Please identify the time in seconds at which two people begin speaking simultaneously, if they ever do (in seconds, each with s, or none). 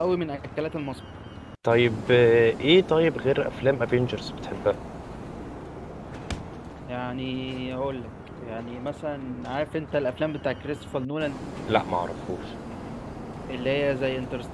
none